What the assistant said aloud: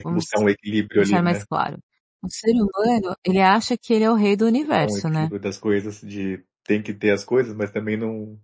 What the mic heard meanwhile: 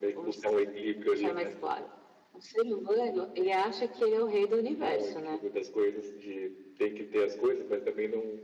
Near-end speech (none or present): none